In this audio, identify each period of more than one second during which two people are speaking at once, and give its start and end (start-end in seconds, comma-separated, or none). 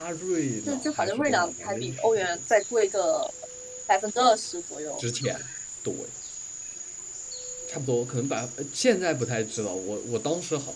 0.7-2.3